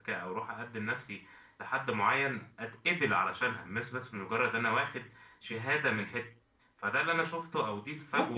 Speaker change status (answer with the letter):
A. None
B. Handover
B